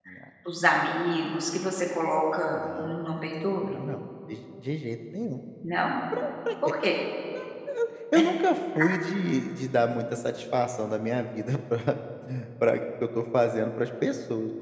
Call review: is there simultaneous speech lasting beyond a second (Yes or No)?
No